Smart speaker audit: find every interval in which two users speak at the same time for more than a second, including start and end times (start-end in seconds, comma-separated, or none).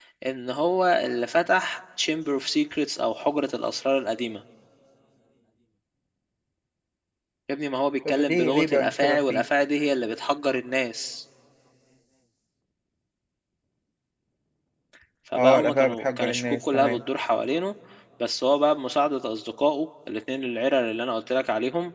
8.1-9.4, 15.3-17.0